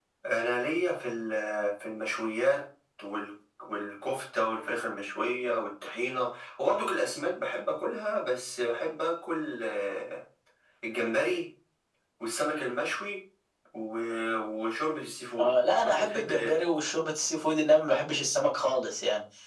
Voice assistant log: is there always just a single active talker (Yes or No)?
No